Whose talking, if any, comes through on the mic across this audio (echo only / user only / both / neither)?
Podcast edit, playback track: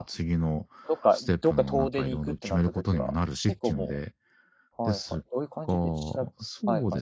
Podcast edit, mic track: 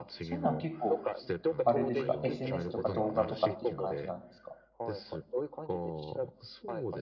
both